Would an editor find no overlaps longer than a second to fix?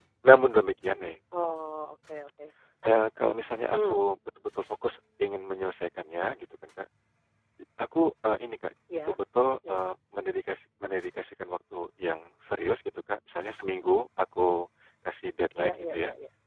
Yes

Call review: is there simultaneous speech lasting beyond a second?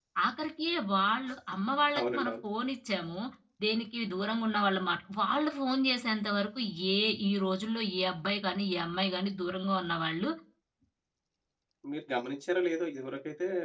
No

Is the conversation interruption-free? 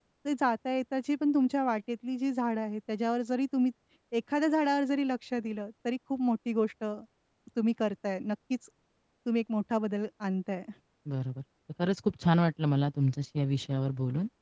Yes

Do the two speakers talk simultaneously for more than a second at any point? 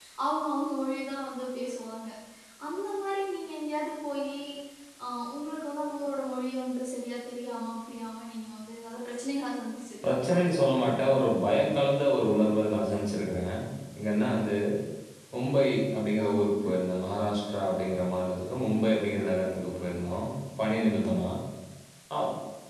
No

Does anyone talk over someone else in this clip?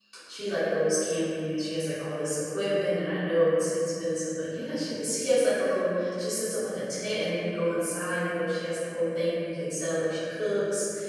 No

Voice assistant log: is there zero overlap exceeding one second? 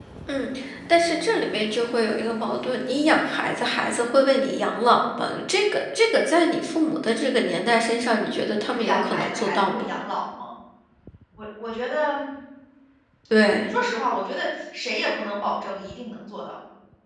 No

